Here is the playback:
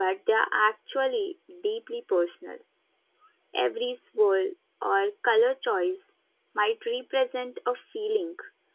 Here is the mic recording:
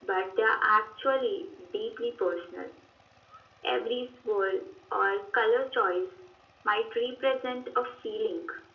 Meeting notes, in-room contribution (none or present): none